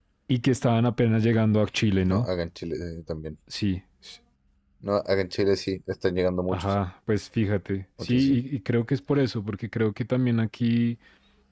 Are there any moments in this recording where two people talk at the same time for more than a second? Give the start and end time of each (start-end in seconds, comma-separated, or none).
none